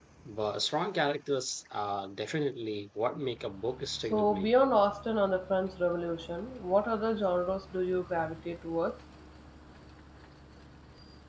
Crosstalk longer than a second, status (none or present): none